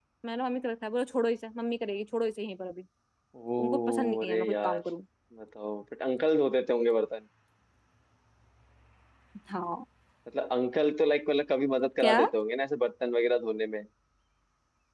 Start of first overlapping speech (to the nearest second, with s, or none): 4 s